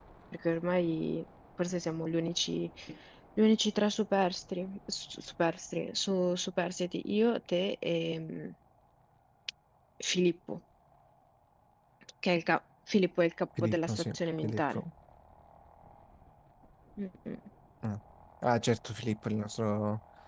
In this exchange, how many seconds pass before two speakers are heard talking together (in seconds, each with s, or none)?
13.6 s